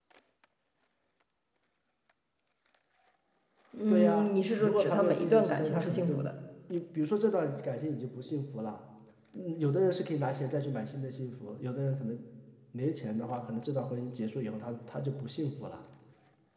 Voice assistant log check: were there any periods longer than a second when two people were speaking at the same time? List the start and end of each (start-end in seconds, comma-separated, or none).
3.9-6.1